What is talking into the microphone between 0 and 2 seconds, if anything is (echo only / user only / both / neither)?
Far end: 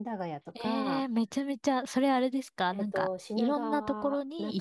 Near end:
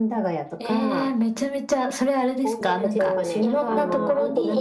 echo only